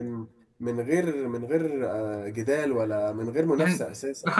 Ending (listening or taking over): taking over